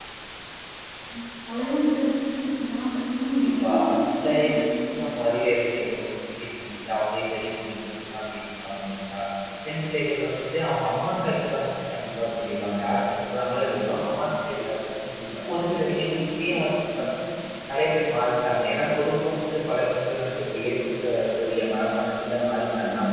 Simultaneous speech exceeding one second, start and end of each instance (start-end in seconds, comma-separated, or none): 3.4-4.6